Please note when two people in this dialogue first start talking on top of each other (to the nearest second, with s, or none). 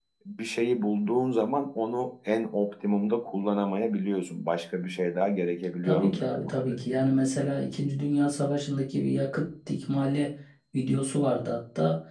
6 s